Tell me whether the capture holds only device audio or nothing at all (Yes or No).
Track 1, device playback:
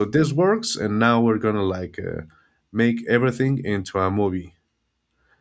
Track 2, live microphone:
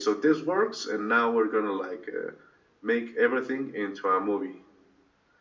Yes